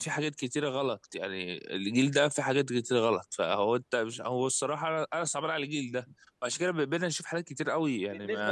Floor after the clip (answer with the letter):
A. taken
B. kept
A